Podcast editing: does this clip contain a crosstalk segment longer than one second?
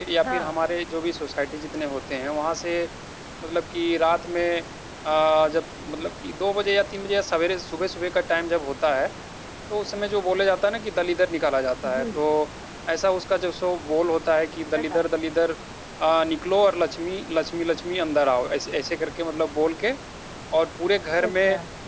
No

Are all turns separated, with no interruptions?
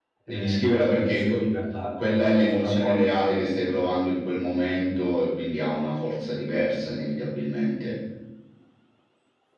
No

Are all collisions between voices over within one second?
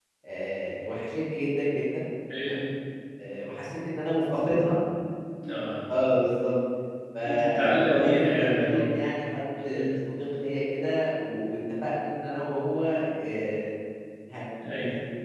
No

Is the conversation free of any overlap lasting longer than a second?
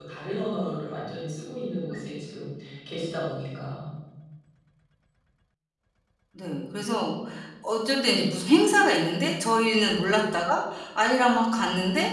Yes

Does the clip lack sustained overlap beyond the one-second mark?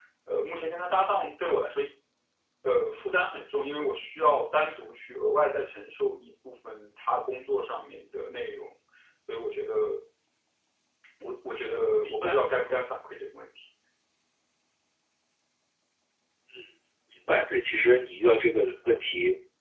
Yes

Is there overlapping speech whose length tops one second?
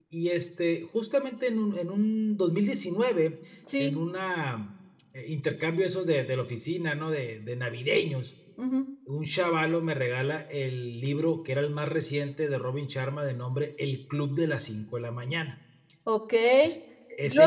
No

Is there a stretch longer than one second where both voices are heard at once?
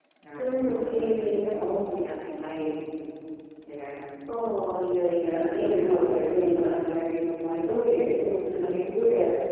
Yes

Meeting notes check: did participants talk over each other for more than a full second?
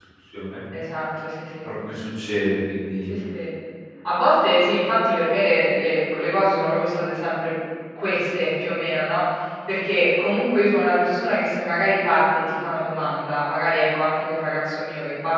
No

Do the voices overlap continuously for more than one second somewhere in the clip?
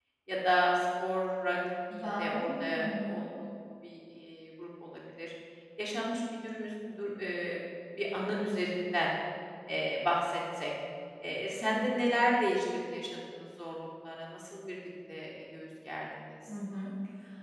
Yes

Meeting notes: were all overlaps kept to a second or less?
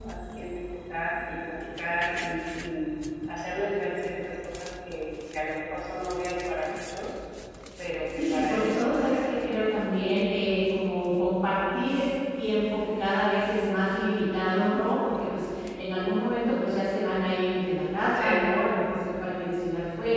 No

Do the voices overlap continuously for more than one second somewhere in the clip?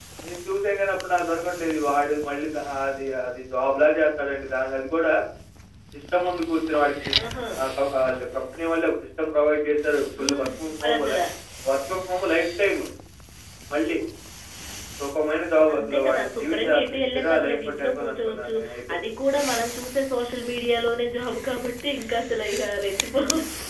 Yes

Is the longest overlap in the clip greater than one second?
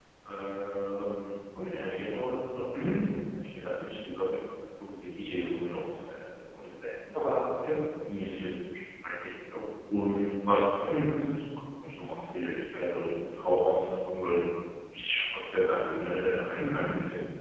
No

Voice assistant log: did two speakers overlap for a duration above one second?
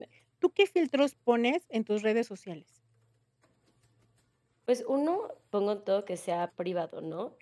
No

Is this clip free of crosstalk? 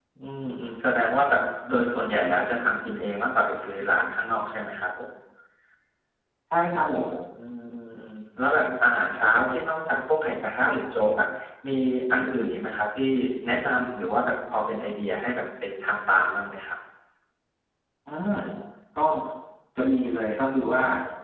Yes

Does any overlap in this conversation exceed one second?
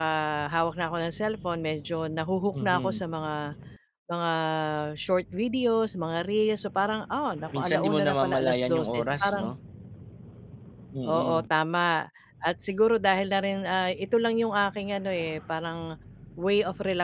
Yes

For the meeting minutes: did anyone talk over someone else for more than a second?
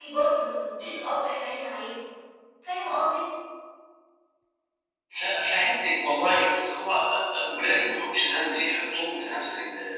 No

